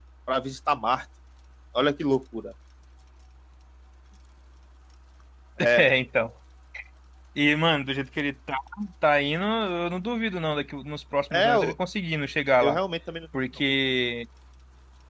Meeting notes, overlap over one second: none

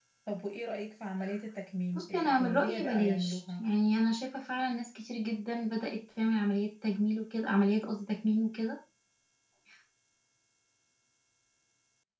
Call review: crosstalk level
present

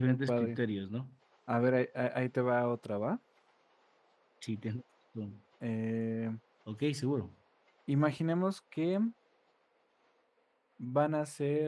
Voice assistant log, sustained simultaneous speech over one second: none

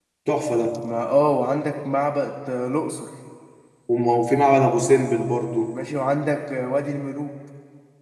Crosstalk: none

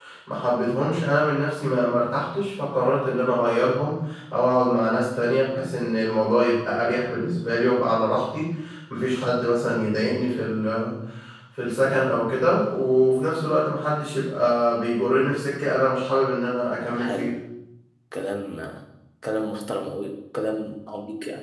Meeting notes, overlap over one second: none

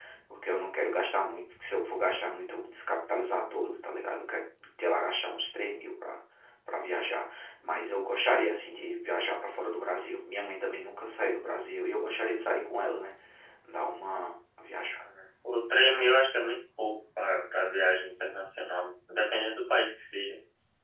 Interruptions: none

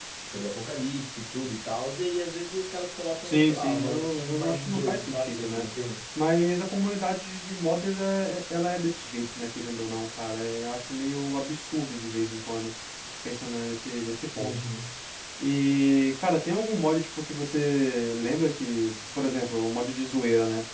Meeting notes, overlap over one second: present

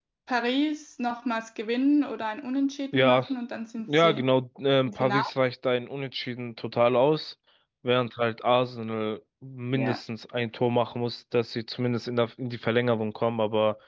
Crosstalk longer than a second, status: none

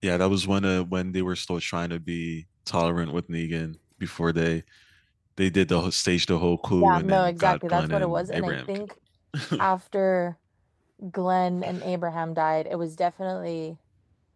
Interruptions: present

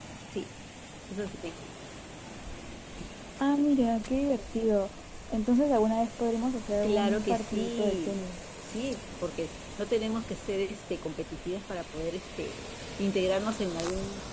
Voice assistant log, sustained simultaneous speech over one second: present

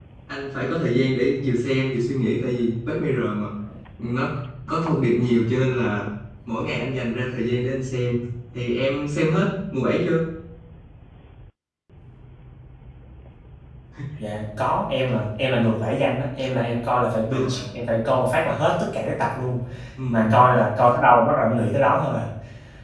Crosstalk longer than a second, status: none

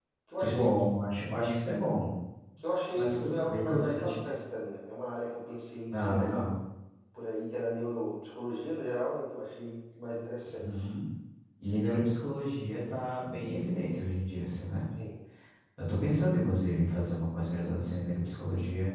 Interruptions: present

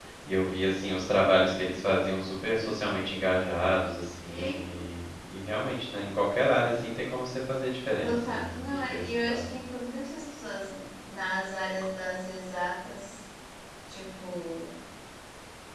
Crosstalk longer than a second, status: present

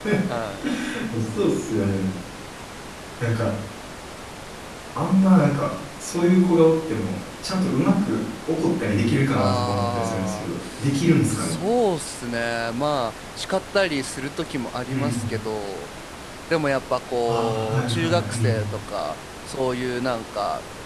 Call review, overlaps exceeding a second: present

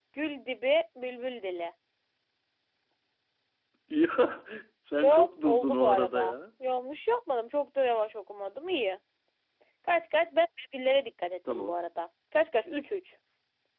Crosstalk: present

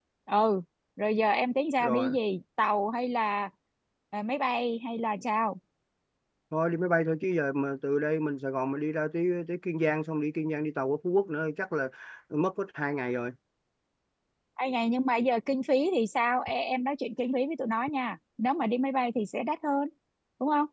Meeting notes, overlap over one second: none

